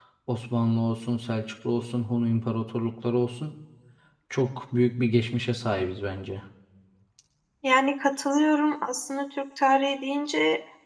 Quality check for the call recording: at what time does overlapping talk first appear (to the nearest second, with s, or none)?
none